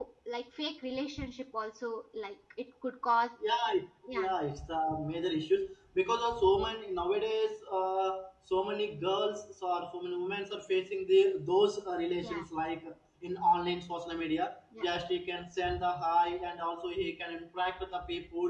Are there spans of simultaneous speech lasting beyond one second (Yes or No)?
No